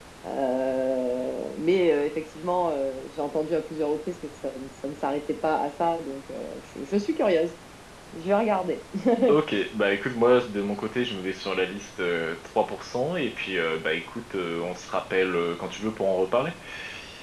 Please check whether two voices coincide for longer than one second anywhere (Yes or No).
No